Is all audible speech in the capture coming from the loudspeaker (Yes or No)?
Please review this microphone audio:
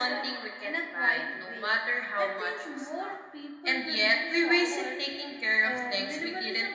Yes